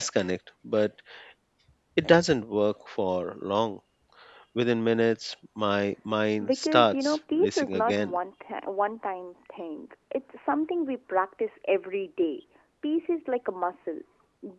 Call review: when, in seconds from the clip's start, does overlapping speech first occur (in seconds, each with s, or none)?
6.4 s